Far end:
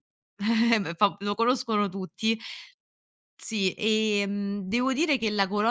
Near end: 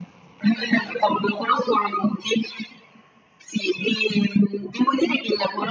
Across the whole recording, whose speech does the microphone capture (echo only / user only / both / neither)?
echo only